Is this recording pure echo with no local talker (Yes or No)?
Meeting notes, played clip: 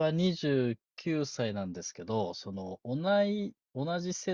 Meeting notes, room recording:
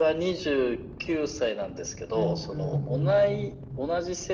No